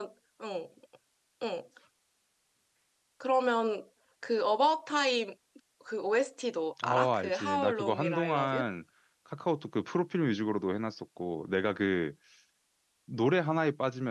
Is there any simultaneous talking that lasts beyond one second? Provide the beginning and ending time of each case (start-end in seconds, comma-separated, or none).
6.8-8.6